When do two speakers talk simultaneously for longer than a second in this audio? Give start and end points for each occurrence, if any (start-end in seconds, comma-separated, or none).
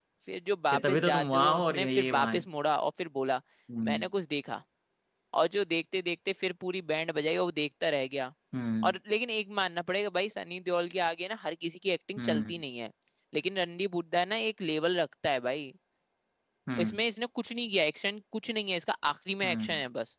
0.7-2.4